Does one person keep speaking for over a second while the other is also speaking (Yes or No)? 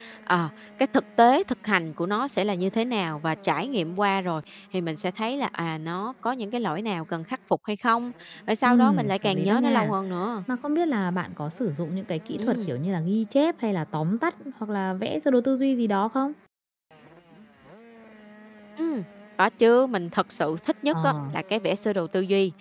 Yes